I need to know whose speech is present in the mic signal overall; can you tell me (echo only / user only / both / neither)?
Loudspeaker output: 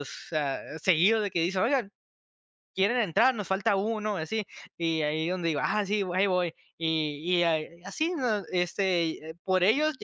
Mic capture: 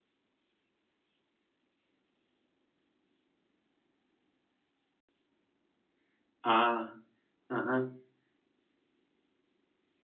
user only